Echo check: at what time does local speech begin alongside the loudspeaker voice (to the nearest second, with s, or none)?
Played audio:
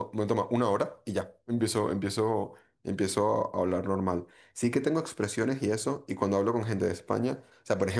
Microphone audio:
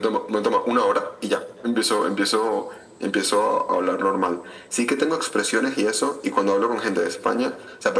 none